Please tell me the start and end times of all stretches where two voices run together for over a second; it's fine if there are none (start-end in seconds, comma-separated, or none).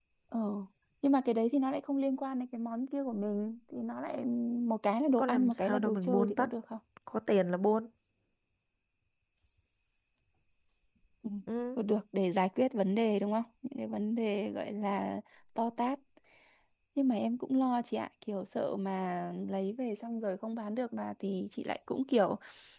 5.1-6.5